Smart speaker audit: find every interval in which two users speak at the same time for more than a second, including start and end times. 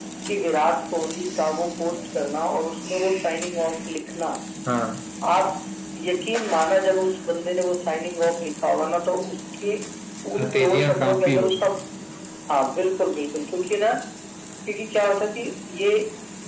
10.4-11.7

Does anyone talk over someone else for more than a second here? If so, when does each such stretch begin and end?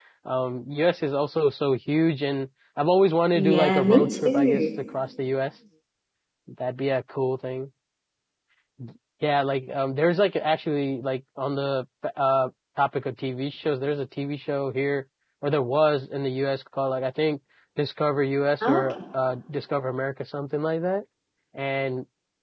3.3-4.6

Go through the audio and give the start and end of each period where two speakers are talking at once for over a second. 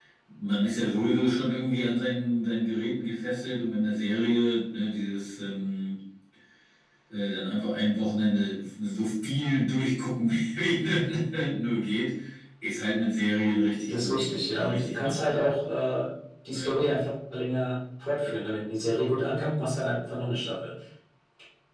13.8-15.4

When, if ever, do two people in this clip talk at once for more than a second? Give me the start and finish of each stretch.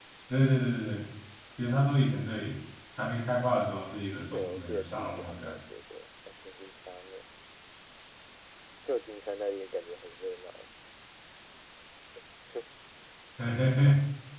4.3-5.6

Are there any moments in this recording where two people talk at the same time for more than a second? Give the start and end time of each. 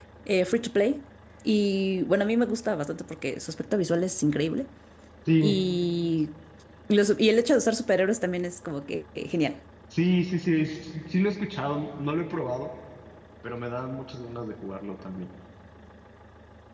none

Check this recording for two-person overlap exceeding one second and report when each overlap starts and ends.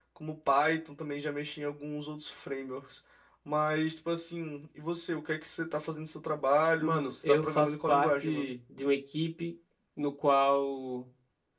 6.8-8.5

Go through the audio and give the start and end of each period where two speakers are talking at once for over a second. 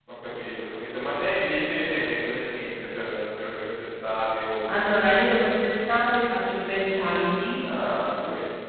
none

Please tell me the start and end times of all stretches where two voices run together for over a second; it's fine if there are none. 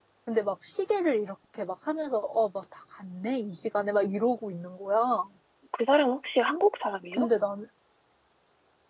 none

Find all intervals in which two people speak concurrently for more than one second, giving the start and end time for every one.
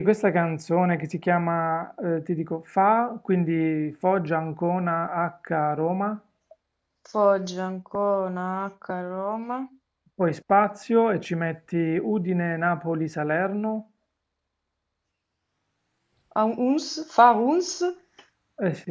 none

